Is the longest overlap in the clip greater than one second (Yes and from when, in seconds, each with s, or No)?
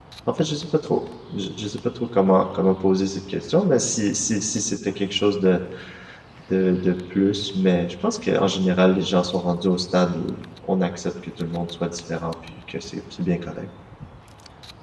No